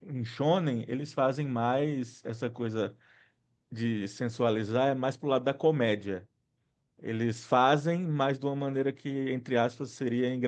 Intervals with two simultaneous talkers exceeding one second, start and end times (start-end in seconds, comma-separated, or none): none